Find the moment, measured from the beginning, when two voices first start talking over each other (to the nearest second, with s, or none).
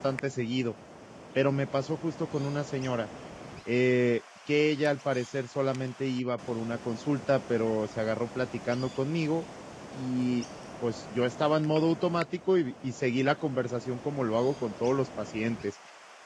none